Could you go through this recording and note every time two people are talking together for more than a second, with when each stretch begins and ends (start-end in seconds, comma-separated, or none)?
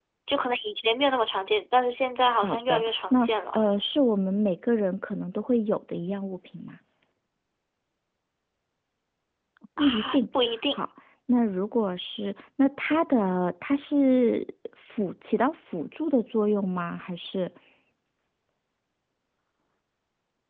2.3-3.6